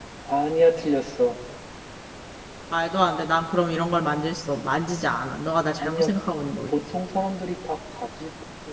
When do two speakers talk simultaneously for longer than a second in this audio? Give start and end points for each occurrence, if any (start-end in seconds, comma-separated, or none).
none